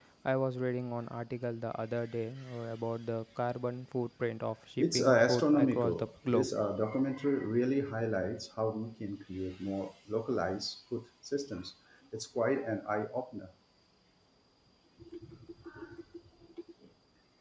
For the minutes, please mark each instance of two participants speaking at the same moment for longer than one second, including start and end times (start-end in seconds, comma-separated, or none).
4.8-6.5